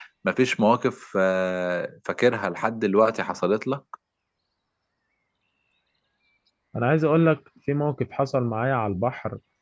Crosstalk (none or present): none